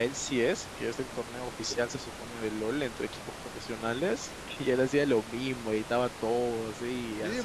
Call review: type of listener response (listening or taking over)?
taking over